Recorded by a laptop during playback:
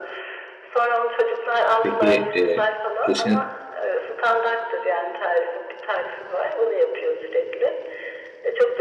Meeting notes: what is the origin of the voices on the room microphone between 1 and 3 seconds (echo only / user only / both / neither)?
both